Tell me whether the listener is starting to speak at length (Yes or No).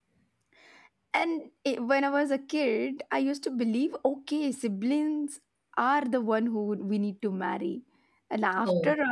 No